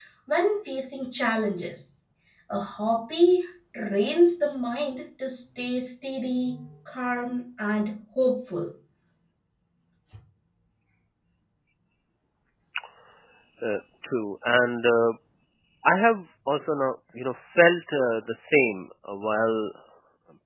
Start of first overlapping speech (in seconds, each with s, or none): none